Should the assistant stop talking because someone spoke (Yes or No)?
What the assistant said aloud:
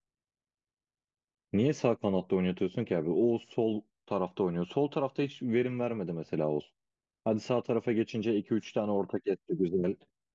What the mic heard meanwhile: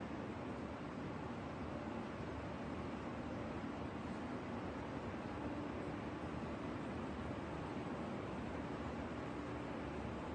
No